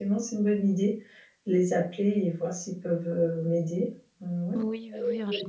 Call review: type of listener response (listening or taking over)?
taking over